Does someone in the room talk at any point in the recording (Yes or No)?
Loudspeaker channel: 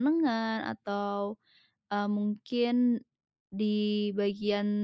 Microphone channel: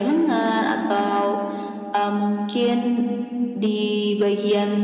No